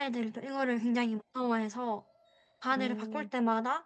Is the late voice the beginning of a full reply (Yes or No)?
No